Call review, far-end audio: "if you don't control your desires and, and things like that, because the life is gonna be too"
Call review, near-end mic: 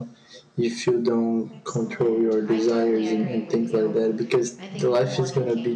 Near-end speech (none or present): present